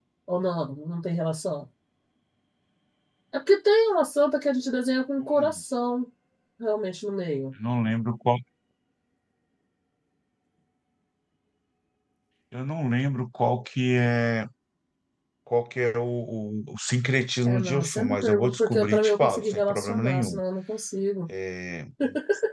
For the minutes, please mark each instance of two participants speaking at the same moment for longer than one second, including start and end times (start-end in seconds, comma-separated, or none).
17.4-20.4